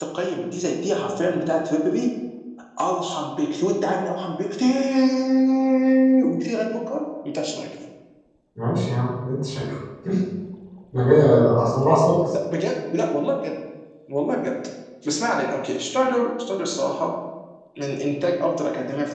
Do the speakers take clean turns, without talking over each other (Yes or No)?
Yes